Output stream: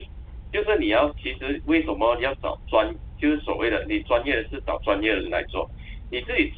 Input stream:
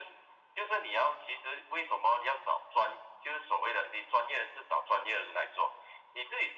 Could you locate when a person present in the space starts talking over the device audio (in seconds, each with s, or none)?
none